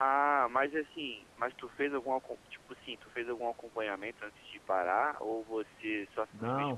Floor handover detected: Yes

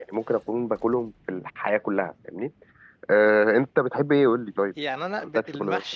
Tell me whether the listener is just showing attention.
No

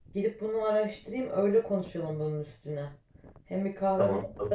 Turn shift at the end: No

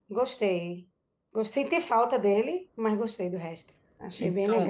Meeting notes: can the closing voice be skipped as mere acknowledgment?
No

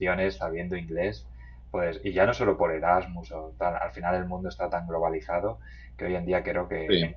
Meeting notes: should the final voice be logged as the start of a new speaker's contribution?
No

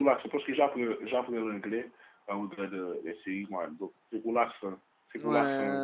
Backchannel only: No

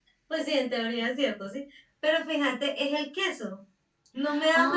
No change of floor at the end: Yes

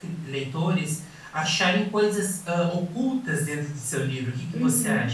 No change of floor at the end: No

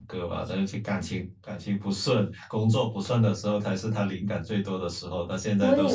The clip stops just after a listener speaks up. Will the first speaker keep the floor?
No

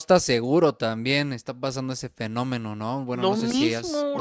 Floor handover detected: Yes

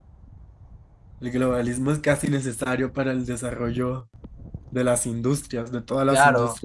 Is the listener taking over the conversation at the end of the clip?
Yes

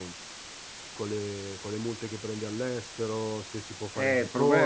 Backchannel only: No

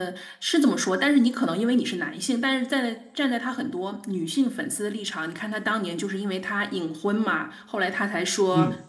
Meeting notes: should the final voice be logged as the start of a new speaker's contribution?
No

